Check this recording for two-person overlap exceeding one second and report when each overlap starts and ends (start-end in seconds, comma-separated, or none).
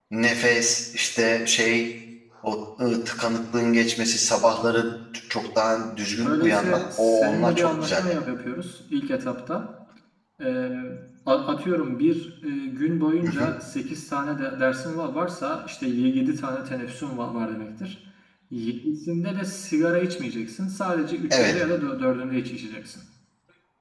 6.2-8.2